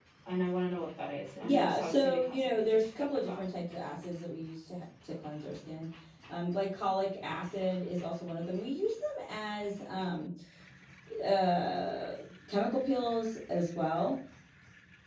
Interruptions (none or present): present